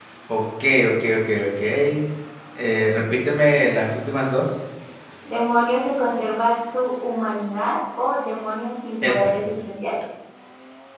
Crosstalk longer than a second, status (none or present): none